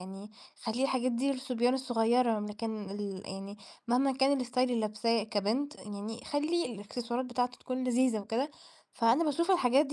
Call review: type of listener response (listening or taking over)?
listening